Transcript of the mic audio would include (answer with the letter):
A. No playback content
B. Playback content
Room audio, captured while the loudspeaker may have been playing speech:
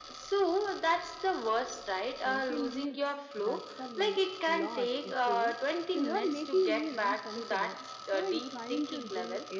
B